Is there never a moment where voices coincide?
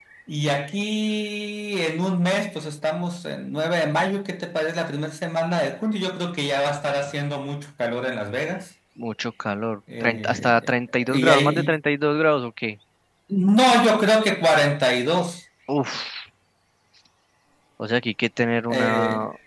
No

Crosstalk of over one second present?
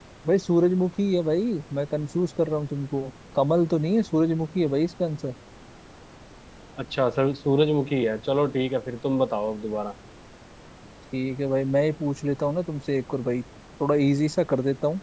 No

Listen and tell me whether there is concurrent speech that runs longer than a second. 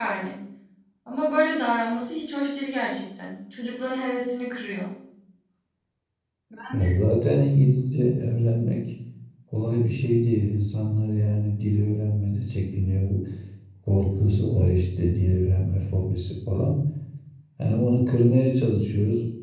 No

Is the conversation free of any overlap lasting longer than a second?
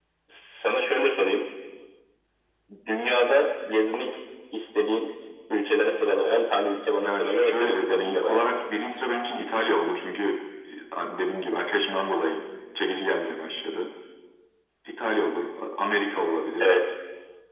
No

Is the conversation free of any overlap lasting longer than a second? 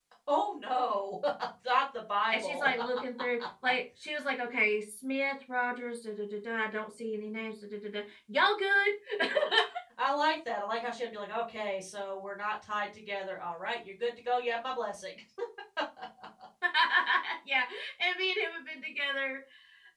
Yes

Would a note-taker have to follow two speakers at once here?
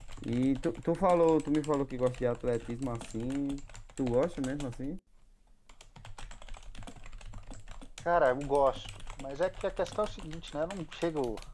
No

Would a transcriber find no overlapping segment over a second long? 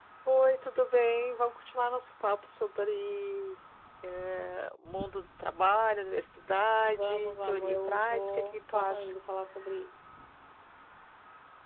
No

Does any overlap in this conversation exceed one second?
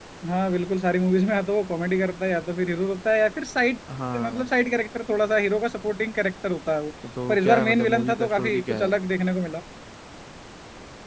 Yes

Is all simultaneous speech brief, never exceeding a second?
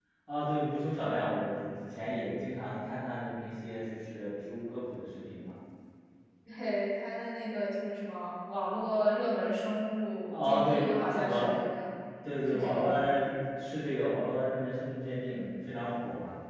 No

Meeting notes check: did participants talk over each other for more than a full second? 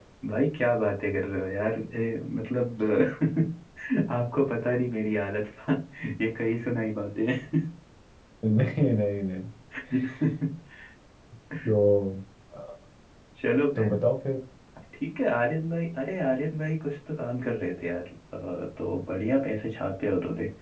No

